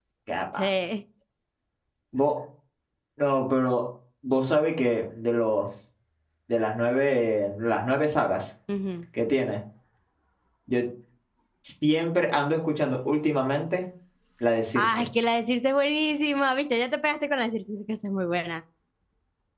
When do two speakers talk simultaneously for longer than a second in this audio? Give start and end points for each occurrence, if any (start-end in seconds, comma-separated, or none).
none